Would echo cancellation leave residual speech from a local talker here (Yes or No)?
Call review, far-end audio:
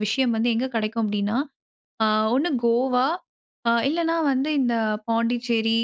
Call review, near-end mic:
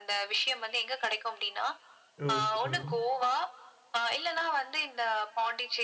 Yes